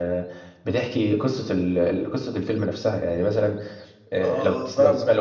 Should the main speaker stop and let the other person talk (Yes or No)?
Yes